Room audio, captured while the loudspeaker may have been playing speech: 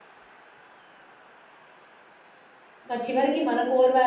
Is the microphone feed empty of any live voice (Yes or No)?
No